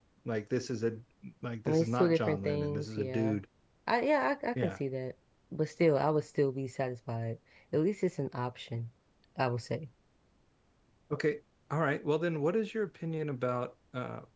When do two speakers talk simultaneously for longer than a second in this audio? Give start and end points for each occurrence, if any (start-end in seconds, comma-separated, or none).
1.6-3.4